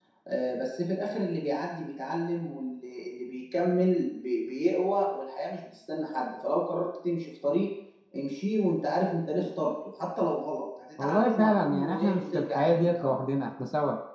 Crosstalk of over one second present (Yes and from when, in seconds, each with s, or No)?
Yes, from 11.0 s